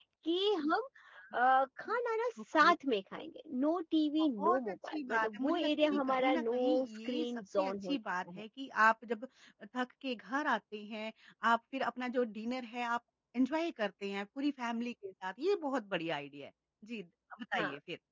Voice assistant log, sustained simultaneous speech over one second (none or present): present